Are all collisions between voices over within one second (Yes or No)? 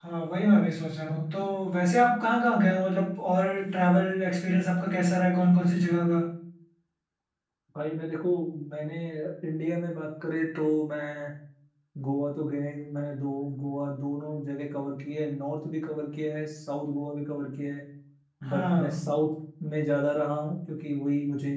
Yes